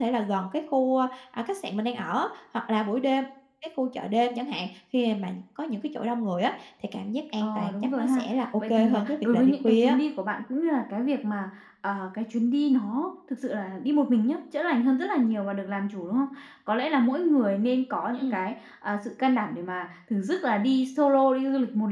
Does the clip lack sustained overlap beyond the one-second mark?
No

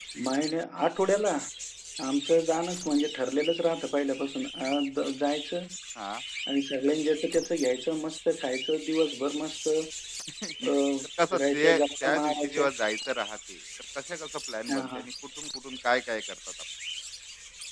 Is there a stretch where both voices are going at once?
Yes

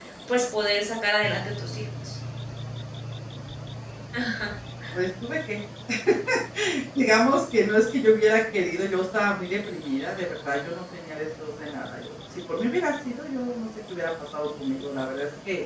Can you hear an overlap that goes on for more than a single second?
No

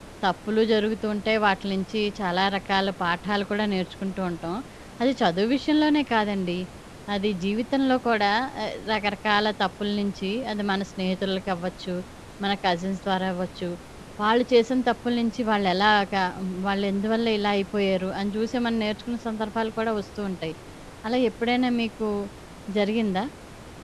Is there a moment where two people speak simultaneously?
No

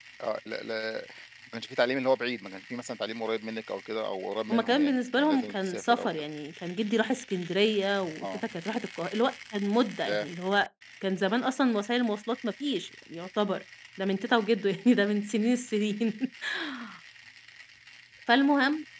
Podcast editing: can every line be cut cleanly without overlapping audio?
No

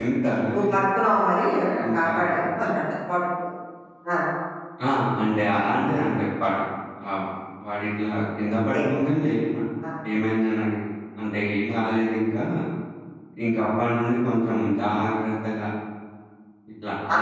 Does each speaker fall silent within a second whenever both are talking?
Yes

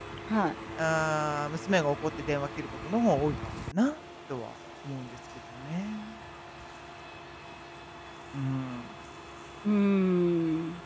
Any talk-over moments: No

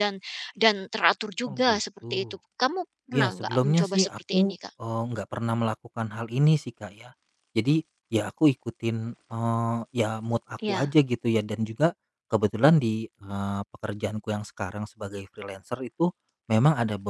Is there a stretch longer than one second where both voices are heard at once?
Yes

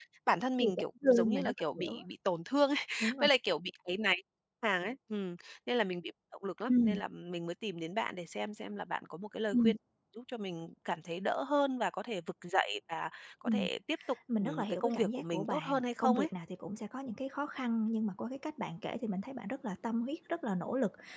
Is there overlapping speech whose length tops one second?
Yes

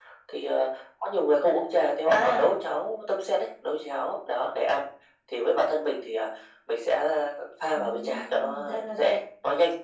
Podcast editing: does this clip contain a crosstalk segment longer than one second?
Yes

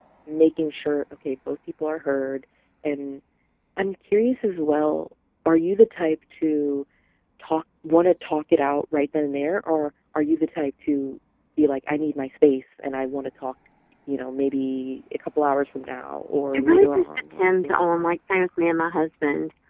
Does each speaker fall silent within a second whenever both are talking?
No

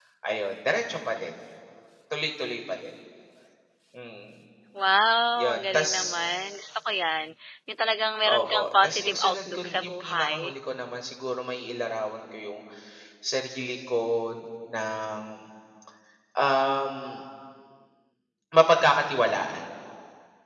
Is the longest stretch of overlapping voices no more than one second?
No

